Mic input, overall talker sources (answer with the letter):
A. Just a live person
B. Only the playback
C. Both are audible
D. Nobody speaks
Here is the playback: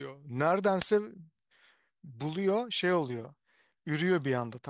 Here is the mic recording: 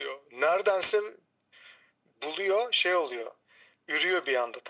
B